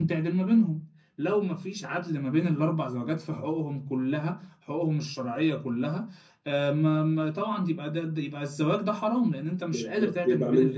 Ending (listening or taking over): taking over